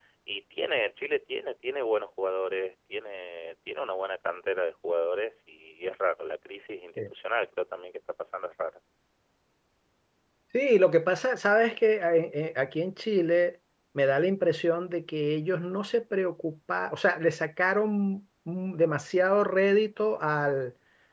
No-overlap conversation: Yes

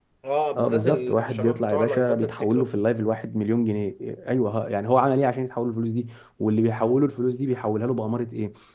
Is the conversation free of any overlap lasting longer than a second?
No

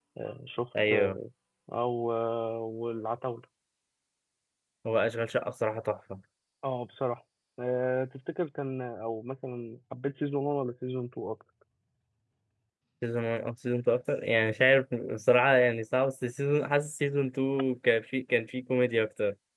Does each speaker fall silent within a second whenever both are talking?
Yes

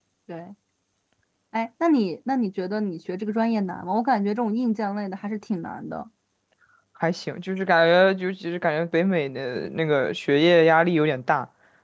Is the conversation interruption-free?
Yes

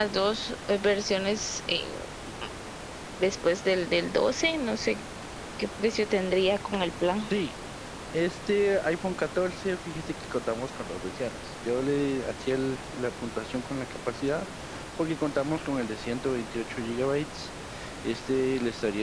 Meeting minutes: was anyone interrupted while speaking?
No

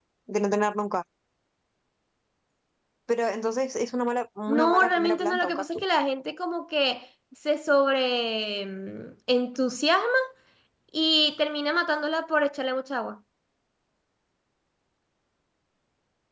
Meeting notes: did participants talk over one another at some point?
Yes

